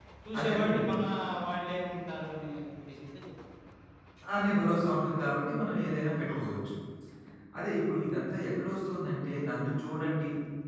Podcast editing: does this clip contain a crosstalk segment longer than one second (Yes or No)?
No